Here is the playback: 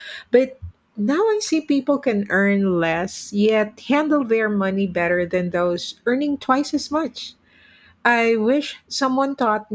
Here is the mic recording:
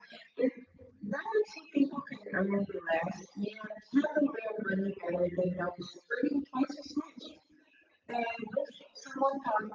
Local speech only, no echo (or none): none